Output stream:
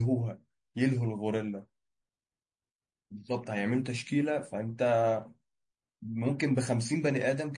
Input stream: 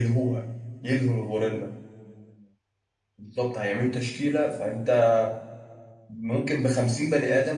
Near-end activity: none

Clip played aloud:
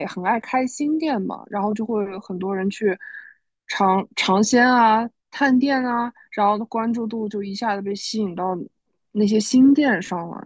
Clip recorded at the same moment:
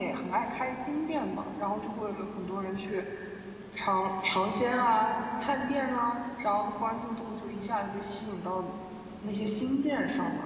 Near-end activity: none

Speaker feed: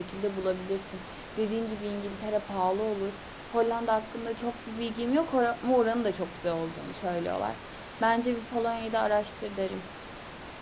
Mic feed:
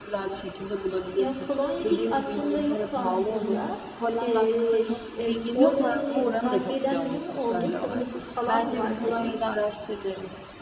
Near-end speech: present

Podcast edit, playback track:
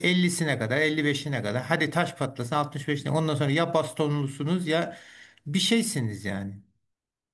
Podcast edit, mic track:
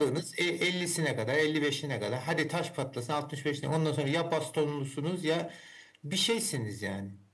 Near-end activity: none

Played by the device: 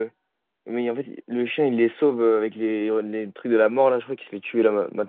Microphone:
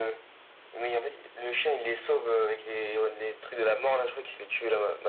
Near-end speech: none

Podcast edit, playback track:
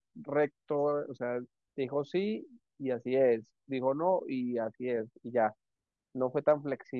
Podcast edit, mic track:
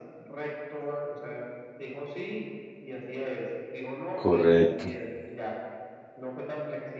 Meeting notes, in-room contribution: present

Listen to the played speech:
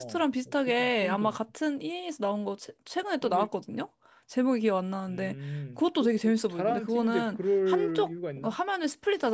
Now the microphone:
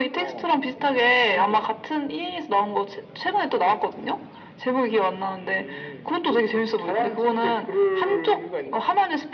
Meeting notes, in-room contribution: none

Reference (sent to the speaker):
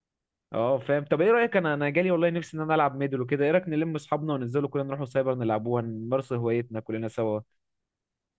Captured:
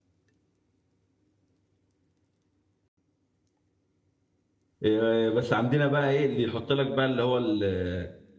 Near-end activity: present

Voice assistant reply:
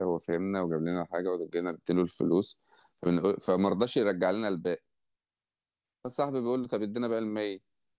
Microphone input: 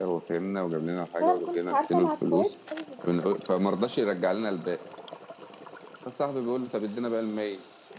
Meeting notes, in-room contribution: present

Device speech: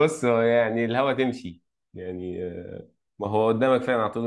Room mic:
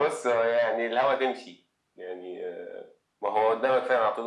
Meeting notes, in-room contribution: none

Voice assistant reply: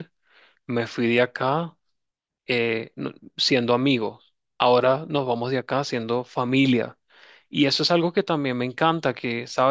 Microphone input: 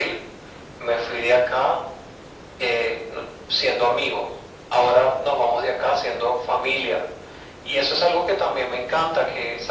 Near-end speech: none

